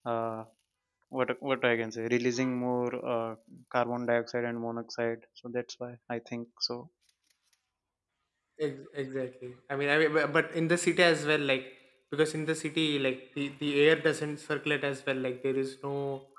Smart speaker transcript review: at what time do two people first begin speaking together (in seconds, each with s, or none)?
none